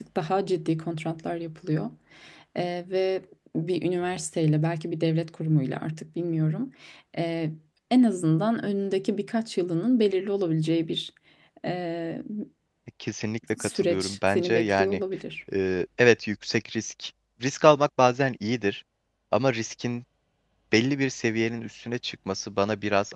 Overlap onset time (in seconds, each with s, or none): 13.6 s